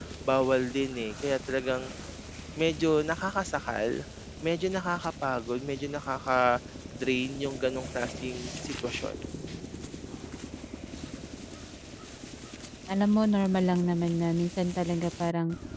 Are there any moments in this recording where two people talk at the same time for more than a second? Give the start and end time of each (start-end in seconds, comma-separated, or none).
none